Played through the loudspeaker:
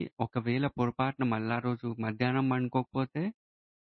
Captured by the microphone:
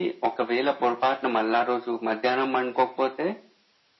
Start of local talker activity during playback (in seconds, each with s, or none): none